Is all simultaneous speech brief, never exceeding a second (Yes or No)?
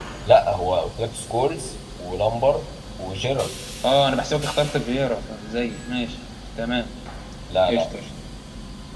Yes